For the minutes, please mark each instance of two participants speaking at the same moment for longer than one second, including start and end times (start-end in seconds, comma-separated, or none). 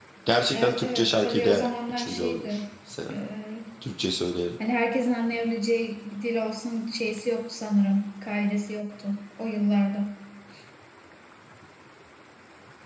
0.5-2.6